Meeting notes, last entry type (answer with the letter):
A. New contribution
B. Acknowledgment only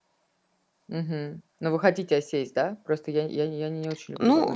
A